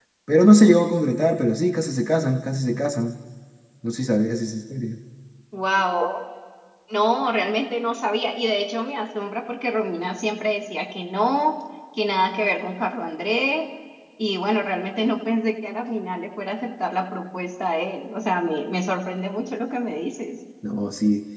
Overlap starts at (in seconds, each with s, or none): none